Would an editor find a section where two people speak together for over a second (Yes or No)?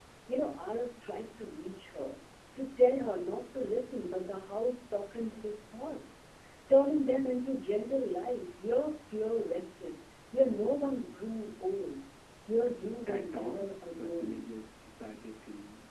Yes